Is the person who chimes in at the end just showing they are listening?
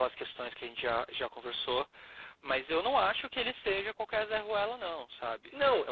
No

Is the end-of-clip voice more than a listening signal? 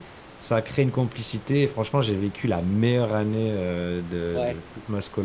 No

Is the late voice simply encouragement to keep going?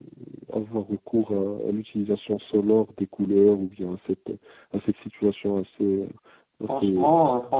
No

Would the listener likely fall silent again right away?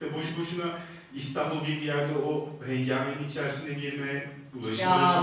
No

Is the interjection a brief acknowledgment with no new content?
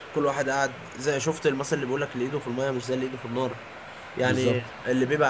Yes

